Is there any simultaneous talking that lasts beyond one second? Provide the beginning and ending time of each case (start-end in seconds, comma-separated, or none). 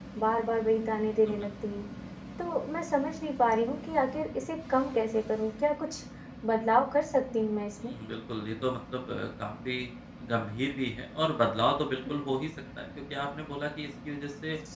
none